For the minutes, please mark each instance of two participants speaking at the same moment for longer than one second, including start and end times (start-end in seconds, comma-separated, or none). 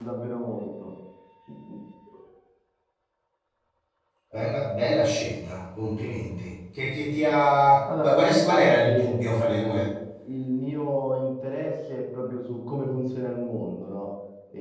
8.0-9.9